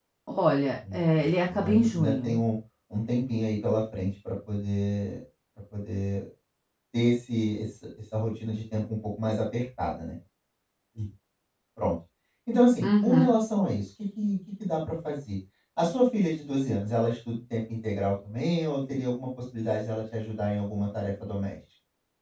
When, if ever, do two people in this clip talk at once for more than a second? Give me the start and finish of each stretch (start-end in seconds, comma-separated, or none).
0.9-2.4